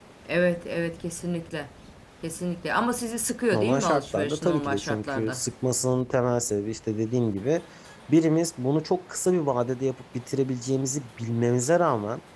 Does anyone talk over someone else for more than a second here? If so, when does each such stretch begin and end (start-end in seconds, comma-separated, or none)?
3.5-5.4